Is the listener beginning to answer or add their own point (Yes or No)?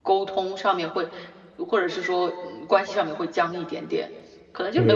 Yes